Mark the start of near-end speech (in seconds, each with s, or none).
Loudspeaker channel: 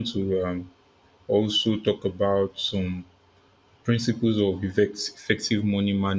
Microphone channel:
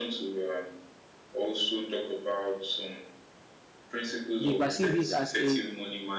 4.4 s